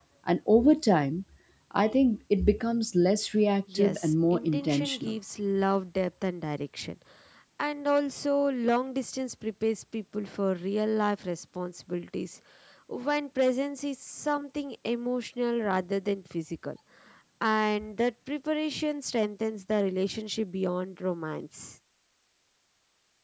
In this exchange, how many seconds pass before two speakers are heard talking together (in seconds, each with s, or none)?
3.7 s